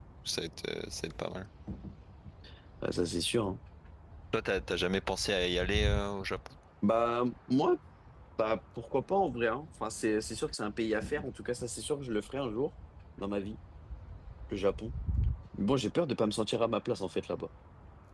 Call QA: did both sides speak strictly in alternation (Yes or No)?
Yes